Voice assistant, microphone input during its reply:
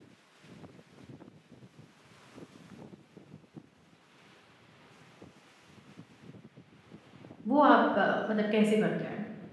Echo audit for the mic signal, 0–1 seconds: neither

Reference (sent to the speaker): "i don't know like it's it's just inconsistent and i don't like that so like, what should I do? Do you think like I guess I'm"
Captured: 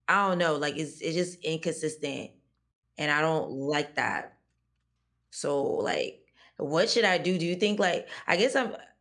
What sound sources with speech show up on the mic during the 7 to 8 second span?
echo only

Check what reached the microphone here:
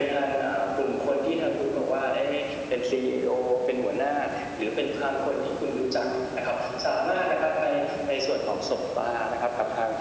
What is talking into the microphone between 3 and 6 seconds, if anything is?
echo only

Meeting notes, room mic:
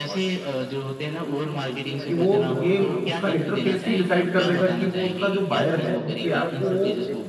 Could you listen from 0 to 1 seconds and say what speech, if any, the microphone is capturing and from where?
echo only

